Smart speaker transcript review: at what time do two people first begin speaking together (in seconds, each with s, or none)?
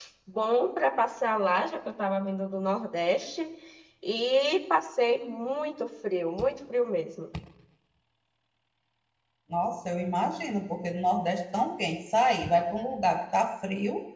none